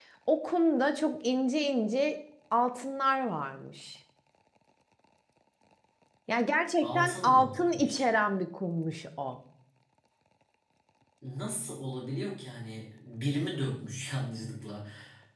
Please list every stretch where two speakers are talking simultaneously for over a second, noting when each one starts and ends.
6.8-8.0

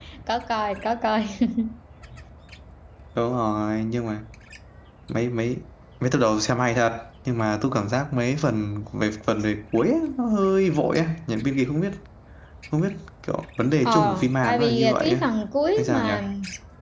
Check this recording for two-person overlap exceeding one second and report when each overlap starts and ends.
13.8-15.2

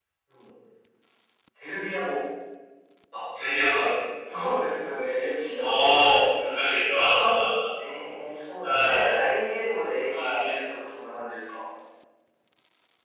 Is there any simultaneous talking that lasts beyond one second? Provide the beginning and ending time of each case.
5.5-6.8

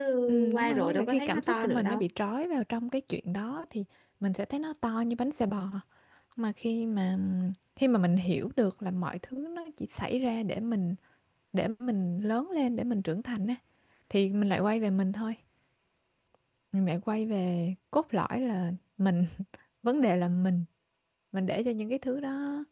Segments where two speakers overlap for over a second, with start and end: 0.5-2.0

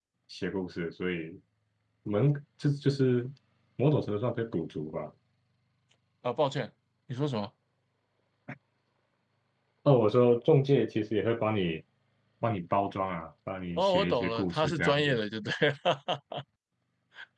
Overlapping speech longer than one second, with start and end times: 13.8-15.2

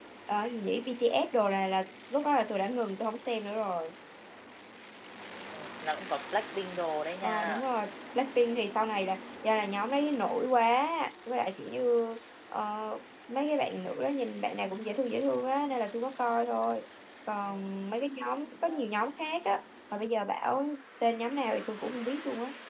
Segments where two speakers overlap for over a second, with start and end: none

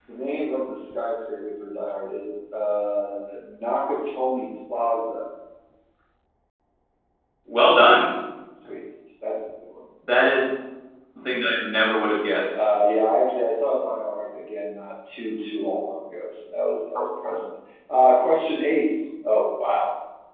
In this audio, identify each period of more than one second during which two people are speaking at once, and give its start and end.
none

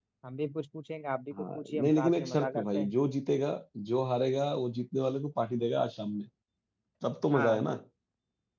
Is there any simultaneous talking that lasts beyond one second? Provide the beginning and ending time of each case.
1.4-2.9

